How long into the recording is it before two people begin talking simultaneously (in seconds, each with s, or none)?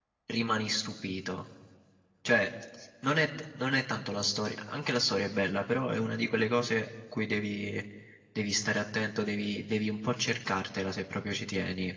none